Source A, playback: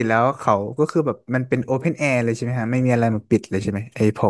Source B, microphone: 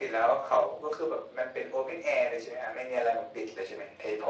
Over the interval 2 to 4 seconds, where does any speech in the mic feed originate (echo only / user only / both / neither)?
echo only